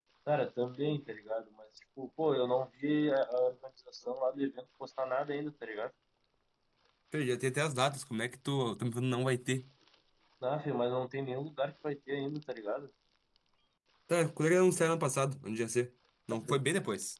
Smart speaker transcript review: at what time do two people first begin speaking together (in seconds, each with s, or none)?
none